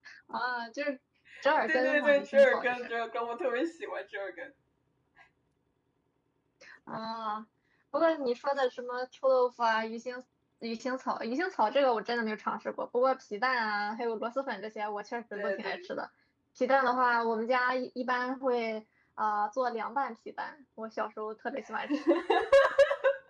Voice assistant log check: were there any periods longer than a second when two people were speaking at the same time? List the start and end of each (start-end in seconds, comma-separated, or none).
1.7-2.9